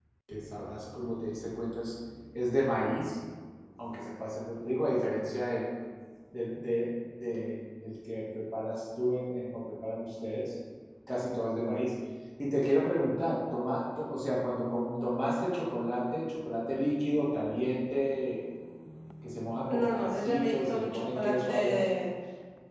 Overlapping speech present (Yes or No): Yes